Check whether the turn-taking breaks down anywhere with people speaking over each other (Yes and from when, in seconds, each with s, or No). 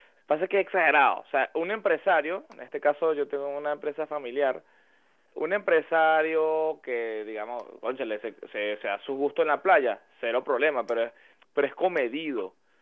No